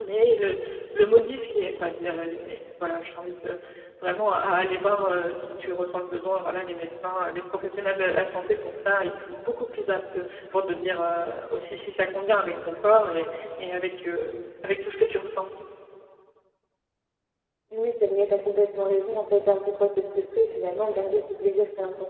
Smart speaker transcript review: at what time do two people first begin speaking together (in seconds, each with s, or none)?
none